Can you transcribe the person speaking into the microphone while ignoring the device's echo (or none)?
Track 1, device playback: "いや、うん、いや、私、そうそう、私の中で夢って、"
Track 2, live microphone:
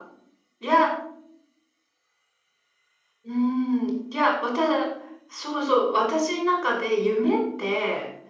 none